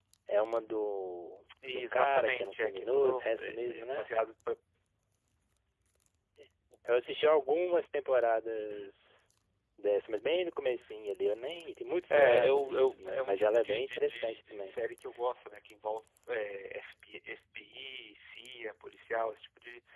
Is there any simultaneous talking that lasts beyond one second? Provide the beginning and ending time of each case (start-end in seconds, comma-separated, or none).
1.7-4.1, 12.1-14.8